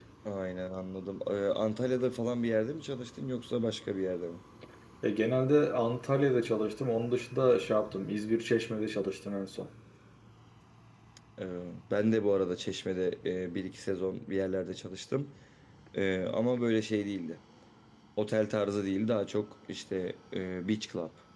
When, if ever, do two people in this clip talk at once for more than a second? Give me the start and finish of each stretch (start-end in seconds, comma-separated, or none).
none